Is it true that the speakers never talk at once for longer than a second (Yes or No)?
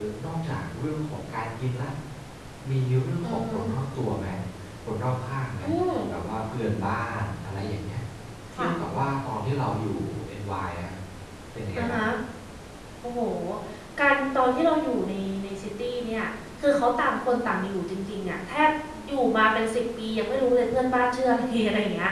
Yes